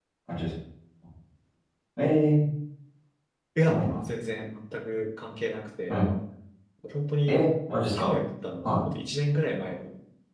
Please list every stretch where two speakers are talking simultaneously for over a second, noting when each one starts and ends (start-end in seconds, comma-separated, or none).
none